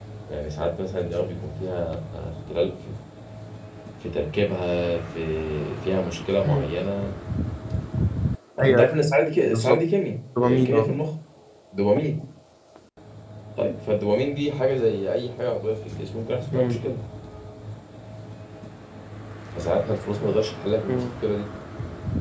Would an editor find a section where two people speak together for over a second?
No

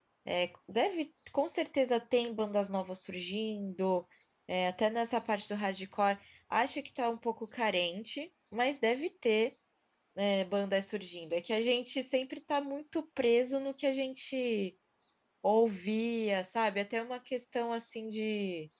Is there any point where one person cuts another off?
No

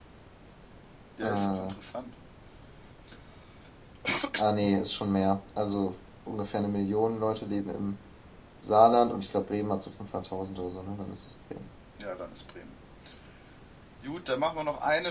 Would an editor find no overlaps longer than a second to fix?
Yes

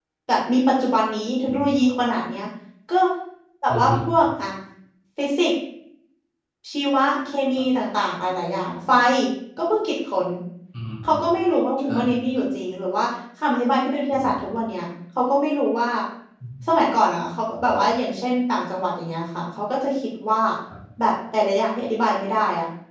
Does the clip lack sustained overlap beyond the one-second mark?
Yes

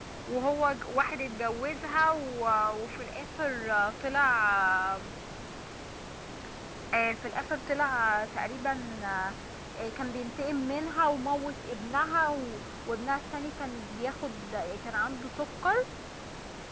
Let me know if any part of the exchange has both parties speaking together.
No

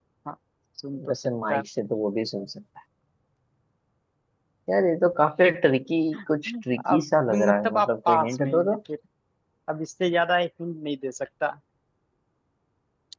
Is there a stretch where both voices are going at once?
Yes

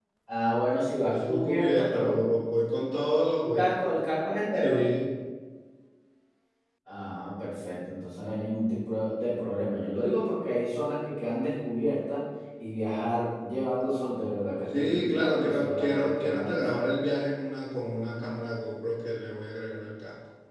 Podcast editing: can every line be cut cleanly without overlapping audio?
No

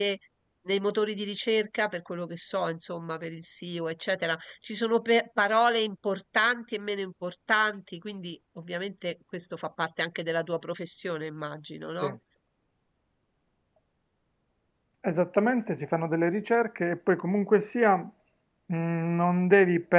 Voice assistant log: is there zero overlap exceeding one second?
Yes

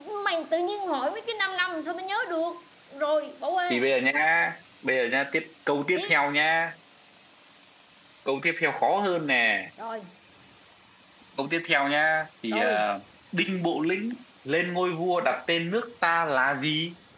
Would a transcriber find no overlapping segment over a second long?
Yes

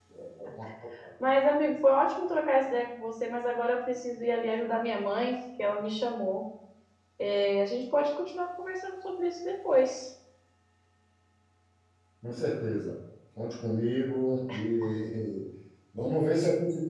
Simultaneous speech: No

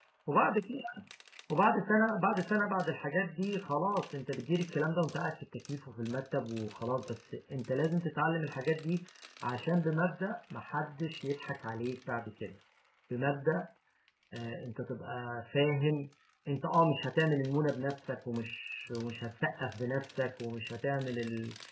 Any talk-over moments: No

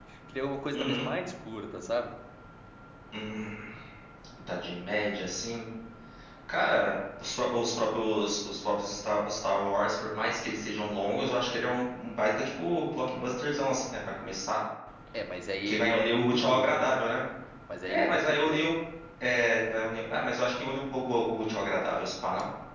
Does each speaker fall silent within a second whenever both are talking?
No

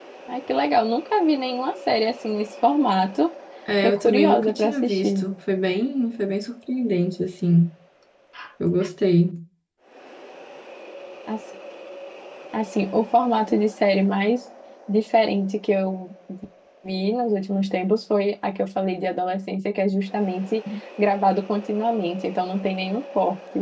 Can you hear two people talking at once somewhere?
Yes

